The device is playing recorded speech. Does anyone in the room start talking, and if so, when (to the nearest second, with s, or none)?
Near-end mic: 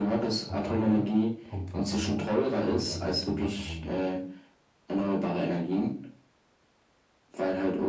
0 s